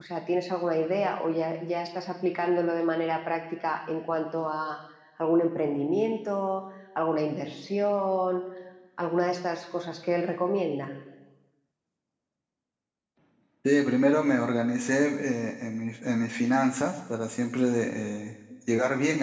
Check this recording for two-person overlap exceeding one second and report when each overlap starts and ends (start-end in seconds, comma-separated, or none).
none